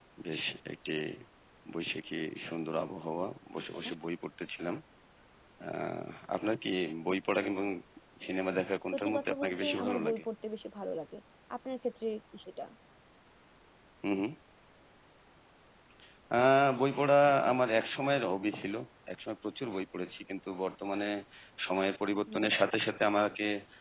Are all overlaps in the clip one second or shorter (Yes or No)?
No